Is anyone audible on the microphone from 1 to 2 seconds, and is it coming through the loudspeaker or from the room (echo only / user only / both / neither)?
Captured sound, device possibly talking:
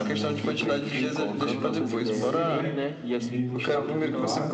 both